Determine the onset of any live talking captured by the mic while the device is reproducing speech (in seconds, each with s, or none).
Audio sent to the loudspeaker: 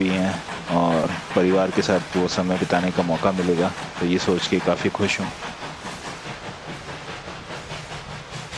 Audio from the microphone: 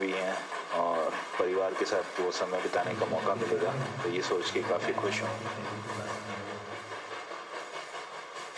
2.8 s